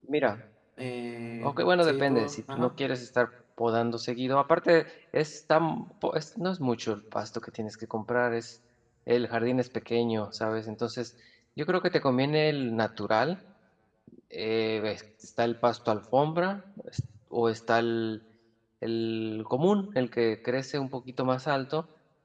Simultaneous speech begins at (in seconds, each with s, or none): 1.4 s